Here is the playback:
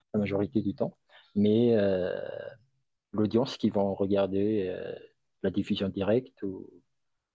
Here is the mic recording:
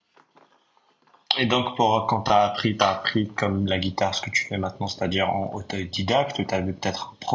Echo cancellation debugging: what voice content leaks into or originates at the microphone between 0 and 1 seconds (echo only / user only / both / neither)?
neither